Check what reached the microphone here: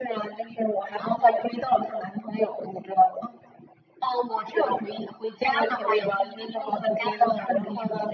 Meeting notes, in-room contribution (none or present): none